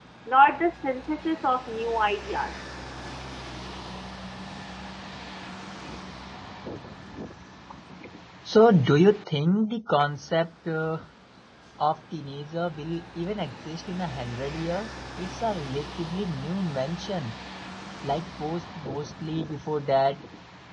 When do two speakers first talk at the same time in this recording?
none

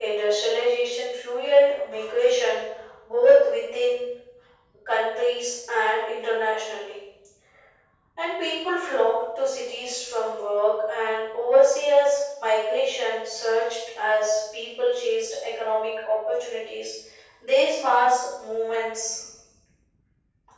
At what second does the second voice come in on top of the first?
none

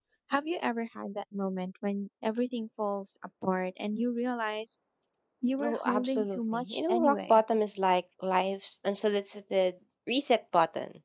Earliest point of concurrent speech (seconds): 6 s

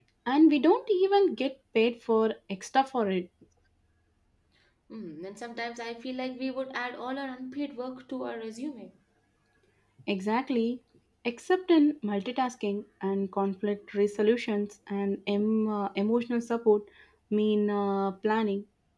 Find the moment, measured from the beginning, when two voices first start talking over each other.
none

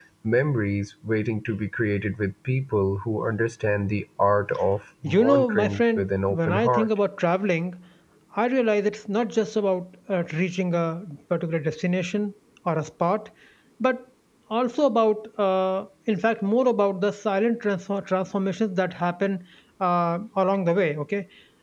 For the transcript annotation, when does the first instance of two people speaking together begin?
5 s

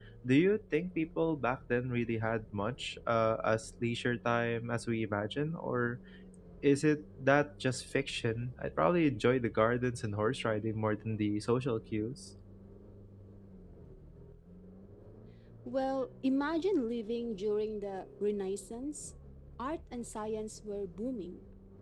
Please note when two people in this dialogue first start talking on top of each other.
none

